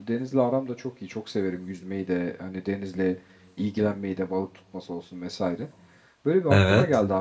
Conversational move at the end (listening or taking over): listening